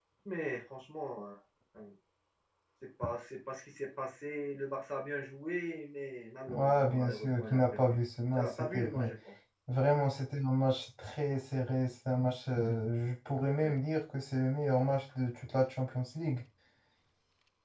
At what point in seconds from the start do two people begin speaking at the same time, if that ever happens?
6.5 s

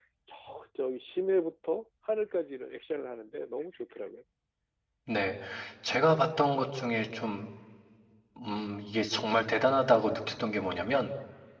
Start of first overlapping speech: none

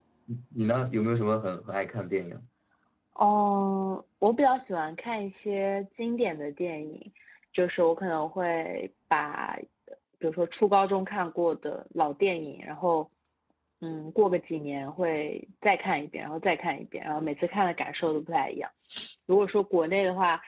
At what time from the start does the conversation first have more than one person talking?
none

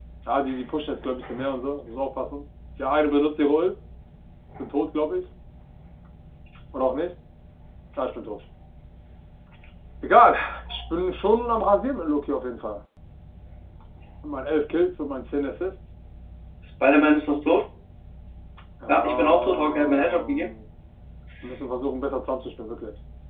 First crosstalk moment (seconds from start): 18.9 s

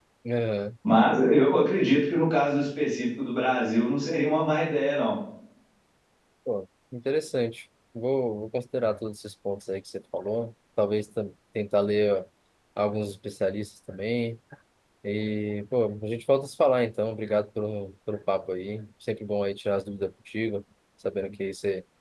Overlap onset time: none

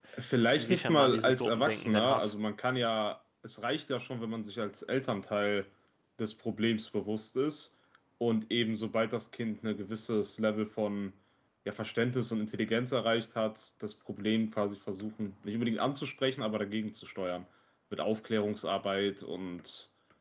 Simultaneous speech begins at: 0.5 s

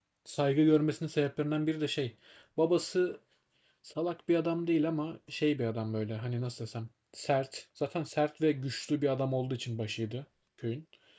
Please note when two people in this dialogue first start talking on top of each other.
none

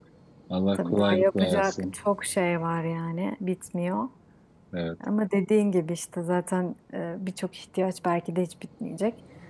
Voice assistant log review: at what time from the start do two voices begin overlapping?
0.7 s

